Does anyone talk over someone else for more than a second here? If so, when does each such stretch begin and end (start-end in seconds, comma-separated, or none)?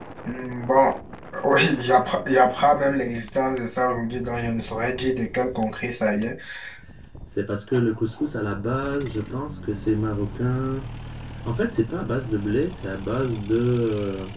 none